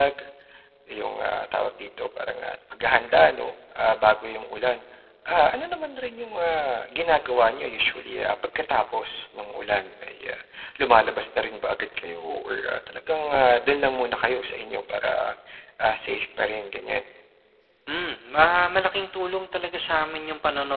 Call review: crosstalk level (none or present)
none